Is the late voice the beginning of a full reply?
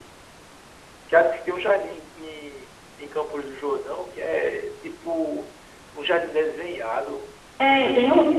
Yes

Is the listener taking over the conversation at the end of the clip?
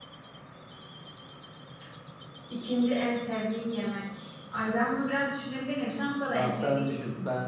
Yes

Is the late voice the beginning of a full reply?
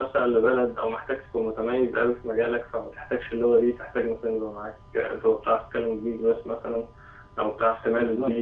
No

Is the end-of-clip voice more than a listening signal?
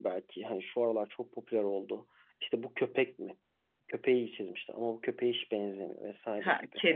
Yes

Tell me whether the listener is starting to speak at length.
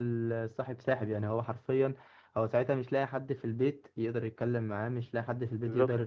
No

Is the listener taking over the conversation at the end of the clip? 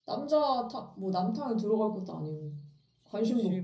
Yes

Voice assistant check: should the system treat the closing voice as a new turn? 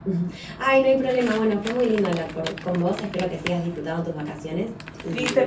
Yes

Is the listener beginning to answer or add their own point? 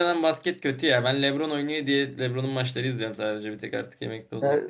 Yes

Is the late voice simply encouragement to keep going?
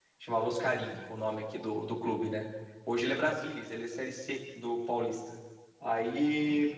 Yes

